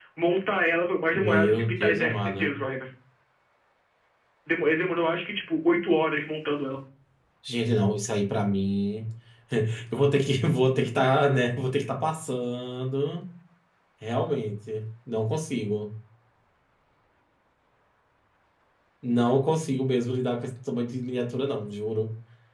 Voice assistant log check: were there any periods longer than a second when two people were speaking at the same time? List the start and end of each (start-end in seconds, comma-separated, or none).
1.1-2.6